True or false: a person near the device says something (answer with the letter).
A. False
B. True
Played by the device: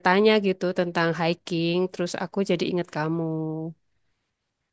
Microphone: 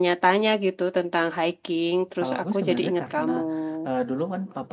B